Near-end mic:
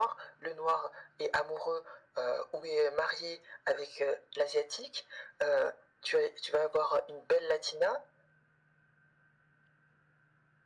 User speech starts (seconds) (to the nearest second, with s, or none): none